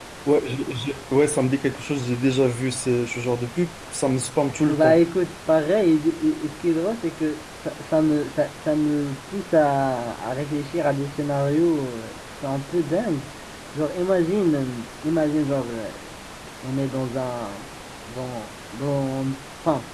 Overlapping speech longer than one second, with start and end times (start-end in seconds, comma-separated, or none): none